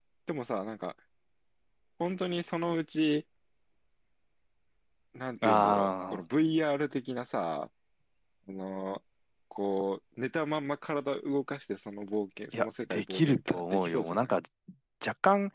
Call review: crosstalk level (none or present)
present